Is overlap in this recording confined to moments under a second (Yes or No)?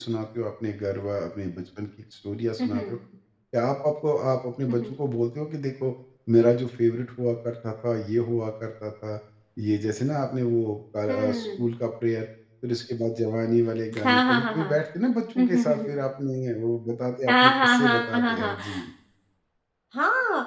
No